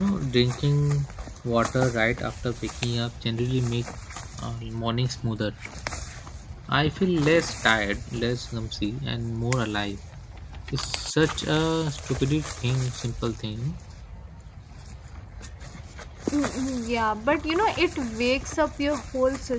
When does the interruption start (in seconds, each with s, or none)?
none